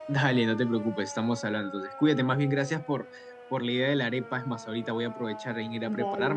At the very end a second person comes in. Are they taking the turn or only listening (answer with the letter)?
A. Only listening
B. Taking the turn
A